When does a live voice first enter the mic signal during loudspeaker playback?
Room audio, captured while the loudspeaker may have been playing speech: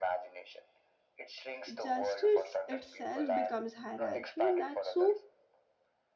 1.7 s

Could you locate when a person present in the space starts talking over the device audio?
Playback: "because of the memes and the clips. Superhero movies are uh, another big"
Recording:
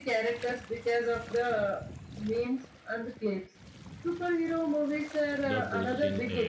5.5 s

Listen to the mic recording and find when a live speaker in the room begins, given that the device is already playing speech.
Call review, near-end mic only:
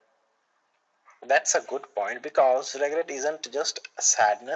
none

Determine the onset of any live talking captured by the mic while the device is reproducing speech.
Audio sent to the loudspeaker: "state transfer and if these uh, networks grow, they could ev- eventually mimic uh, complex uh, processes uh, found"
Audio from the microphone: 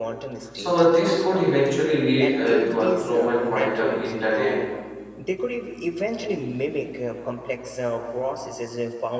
0.5 s

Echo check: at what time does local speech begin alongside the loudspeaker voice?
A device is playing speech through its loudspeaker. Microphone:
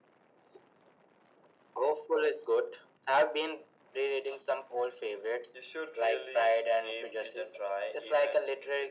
none

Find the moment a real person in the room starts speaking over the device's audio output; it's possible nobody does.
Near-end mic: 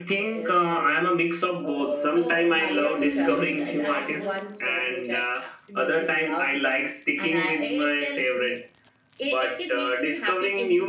1.8 s

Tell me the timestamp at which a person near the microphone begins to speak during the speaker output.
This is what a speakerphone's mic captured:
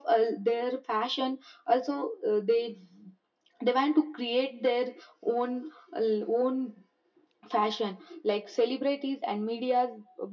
none

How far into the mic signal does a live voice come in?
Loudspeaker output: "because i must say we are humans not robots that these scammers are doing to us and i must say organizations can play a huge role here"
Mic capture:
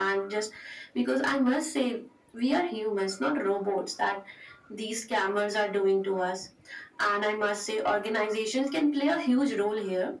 none

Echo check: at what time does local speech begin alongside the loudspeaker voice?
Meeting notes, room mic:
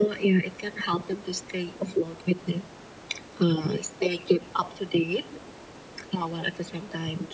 none

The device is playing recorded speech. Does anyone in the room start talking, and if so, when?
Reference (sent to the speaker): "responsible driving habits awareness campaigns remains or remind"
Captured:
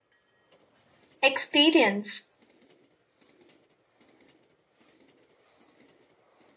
1.2 s

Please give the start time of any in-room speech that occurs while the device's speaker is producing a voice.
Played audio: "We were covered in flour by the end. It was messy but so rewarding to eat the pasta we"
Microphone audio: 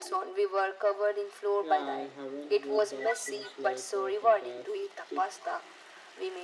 1.6 s

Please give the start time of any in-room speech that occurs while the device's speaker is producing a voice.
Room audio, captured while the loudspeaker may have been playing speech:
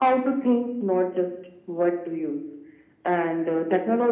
none

